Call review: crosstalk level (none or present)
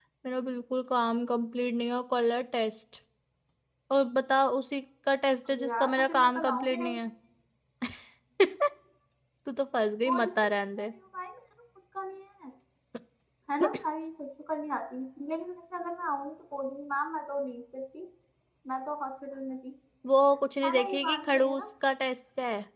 present